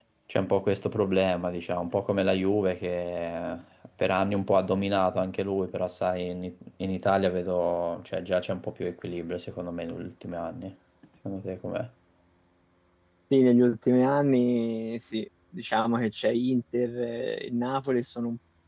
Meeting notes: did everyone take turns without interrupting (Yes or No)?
Yes